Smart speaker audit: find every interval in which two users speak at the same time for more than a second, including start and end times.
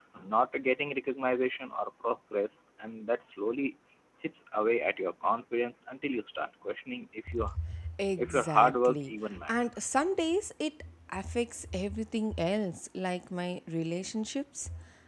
8.2-9.9

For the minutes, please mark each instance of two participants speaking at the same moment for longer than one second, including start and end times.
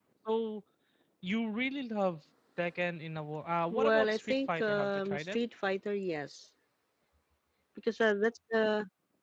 3.7-5.4

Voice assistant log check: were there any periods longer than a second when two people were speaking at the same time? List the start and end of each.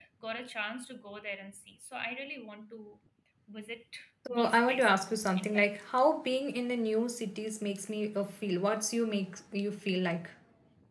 4.3-5.8

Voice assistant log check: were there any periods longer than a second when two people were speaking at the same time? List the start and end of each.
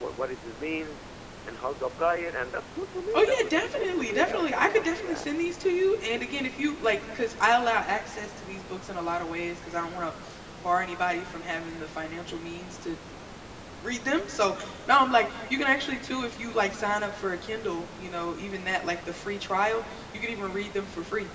3.2-5.3

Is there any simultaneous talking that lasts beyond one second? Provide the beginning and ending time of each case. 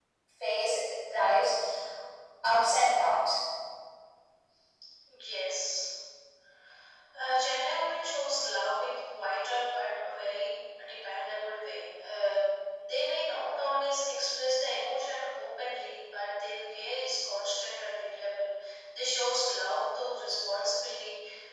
none

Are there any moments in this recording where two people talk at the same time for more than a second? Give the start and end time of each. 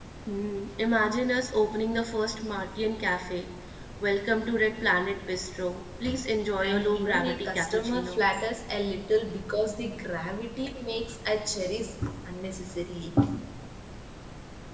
6.6-8.2

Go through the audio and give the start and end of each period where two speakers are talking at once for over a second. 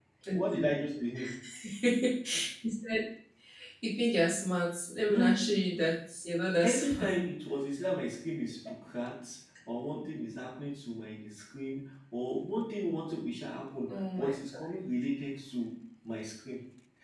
none

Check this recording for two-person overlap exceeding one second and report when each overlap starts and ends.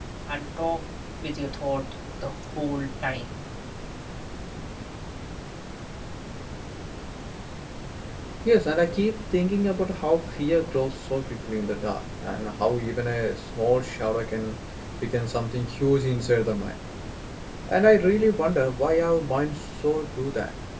none

